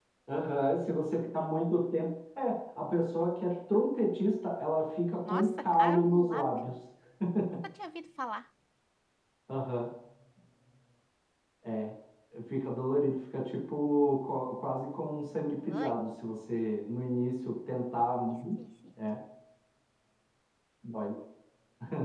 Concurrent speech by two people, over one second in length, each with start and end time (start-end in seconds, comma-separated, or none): 5.2-6.5